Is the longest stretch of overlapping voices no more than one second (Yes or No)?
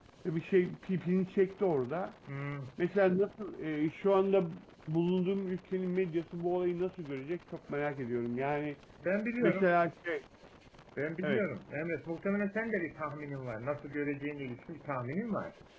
Yes